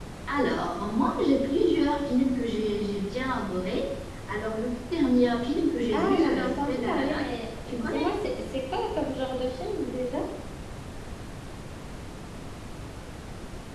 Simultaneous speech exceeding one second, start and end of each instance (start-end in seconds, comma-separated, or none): 5.9-7.3